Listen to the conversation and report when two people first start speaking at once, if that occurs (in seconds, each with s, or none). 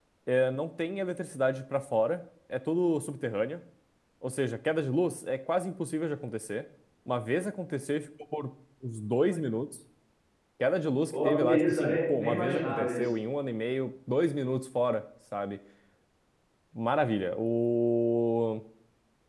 11.2 s